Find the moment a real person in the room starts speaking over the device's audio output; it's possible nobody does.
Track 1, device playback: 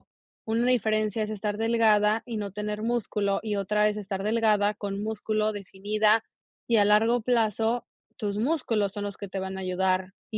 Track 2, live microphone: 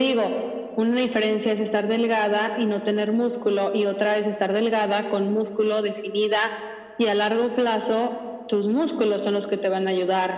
none

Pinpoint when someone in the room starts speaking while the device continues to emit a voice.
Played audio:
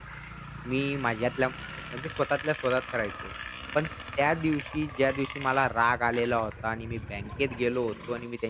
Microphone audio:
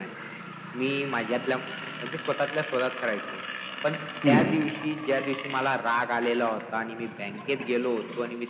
4 s

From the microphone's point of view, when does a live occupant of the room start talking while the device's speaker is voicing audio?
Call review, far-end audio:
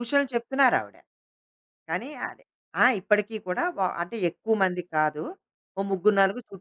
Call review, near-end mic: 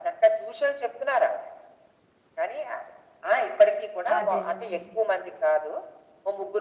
4 s

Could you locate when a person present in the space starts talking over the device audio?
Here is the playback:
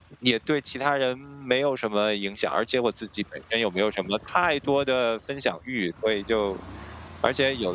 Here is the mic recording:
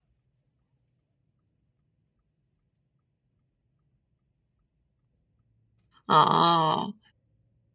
6 s

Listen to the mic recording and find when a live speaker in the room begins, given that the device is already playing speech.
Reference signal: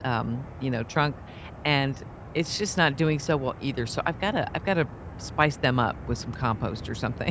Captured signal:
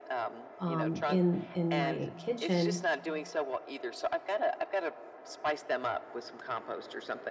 1 s

